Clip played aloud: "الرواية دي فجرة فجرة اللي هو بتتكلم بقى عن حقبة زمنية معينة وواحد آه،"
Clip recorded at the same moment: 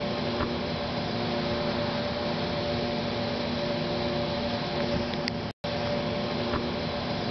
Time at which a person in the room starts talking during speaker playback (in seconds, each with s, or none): none